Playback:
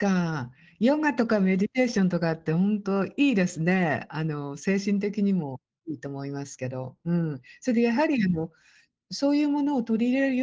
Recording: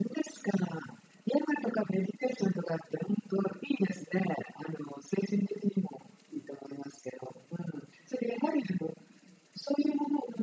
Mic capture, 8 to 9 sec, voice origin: echo only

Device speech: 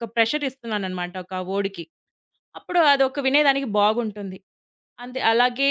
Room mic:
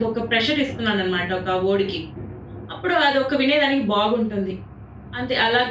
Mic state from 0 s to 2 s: echo only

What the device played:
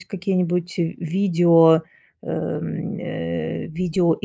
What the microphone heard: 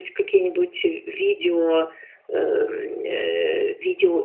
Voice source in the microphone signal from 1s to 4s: echo only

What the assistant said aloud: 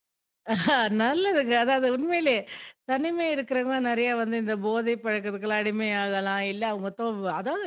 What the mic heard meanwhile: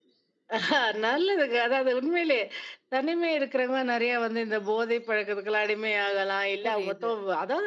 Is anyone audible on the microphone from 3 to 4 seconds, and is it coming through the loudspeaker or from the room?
echo only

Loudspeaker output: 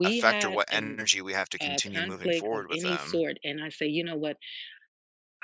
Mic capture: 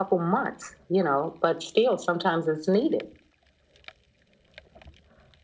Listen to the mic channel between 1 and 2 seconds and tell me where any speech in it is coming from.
user only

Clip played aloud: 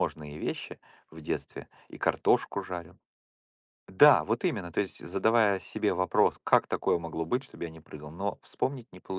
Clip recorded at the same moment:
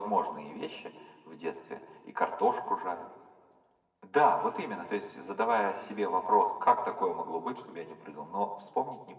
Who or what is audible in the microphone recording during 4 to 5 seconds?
echo only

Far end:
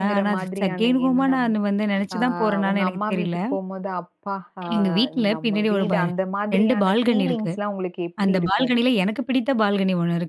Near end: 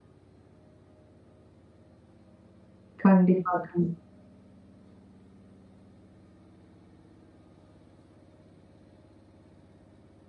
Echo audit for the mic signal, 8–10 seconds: neither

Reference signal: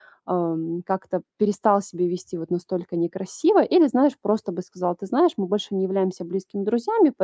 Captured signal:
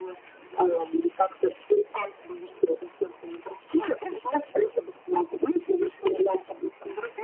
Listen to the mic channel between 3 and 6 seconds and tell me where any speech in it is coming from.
echo only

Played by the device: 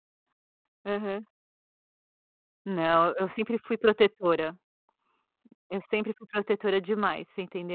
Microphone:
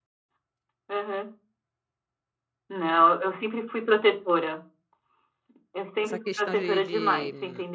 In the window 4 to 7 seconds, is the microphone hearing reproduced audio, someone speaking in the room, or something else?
both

